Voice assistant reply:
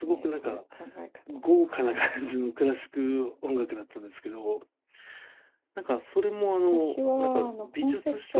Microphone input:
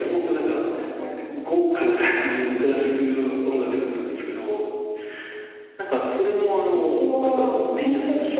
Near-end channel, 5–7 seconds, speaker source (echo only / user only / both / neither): echo only